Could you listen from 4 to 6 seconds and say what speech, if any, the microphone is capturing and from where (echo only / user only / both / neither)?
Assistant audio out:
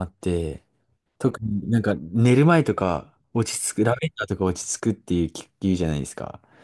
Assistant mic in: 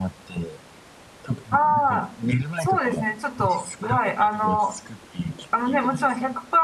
both